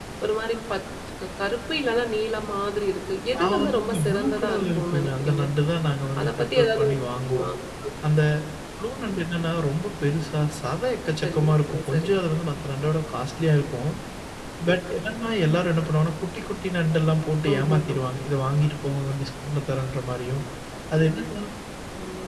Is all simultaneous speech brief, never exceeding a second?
No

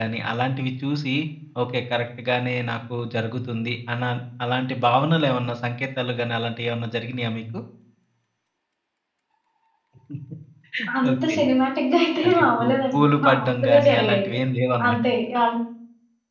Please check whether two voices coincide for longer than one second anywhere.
Yes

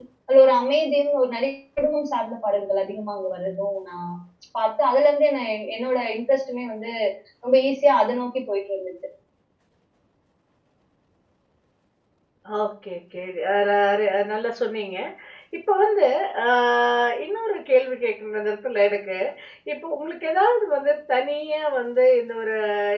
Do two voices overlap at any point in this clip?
No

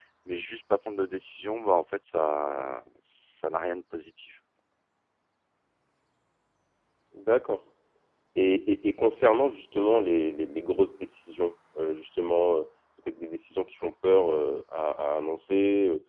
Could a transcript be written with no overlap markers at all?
Yes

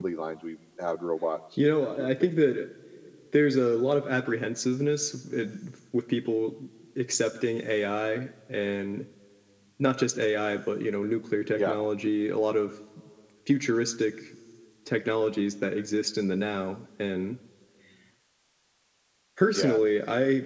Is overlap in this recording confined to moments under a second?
Yes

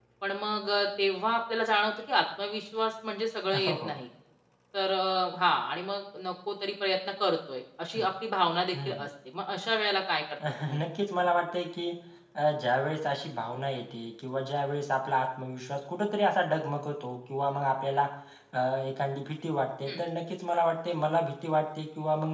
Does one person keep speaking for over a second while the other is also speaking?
No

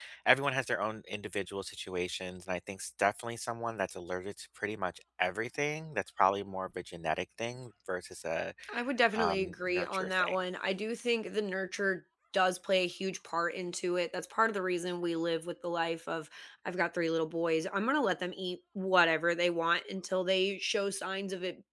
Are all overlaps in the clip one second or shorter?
No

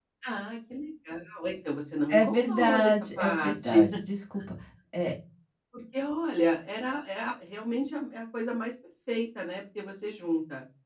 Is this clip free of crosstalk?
No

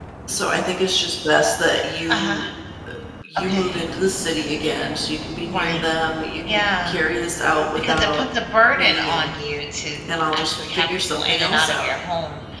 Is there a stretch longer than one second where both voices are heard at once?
Yes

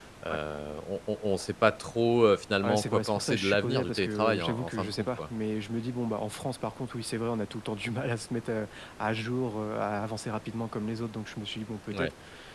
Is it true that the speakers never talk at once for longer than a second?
No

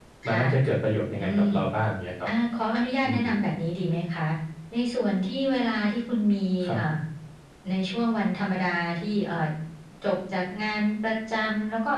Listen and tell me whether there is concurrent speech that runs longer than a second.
No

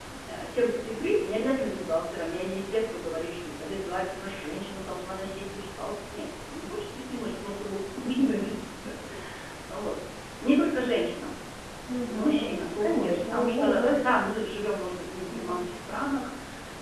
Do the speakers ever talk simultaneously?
Yes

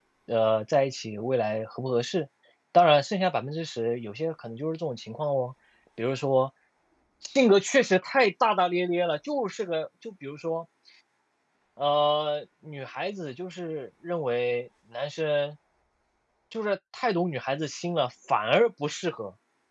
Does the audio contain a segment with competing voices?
No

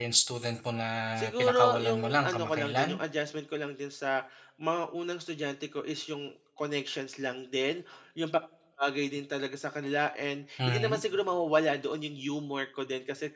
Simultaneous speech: Yes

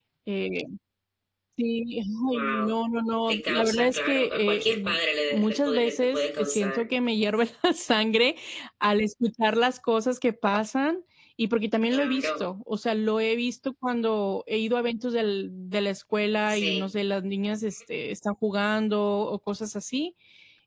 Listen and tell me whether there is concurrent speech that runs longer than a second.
Yes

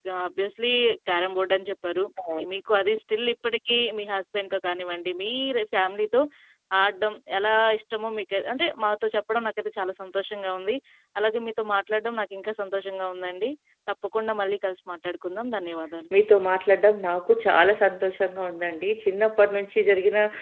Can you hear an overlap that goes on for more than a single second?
No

